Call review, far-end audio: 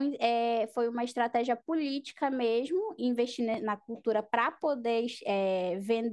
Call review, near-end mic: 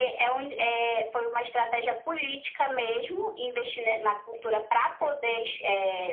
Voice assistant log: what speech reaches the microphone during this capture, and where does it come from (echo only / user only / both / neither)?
echo only